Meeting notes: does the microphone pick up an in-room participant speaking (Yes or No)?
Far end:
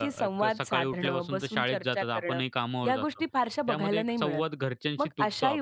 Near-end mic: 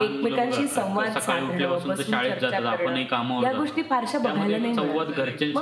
Yes